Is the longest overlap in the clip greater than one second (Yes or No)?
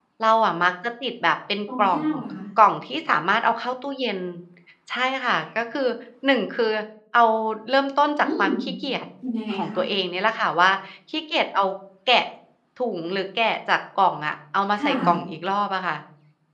No